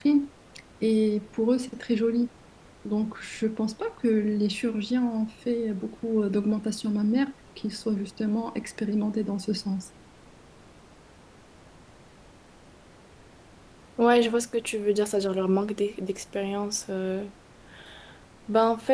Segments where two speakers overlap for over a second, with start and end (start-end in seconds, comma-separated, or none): none